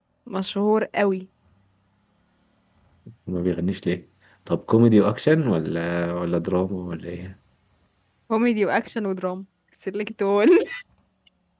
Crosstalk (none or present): none